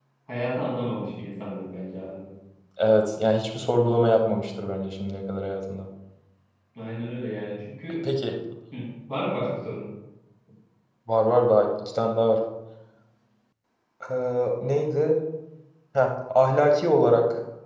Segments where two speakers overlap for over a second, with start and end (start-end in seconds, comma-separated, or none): none